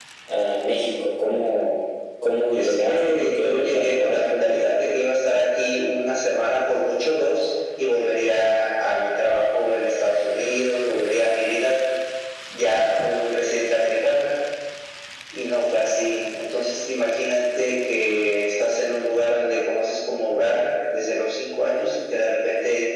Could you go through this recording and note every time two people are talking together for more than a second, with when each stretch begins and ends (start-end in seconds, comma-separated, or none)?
2.5-4.8